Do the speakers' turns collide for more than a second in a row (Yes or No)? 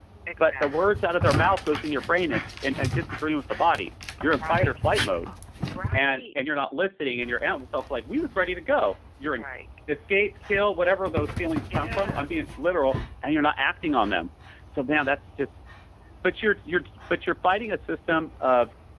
No